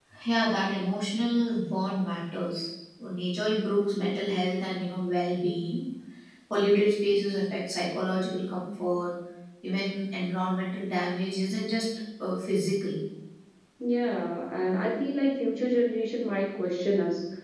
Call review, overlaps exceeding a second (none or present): none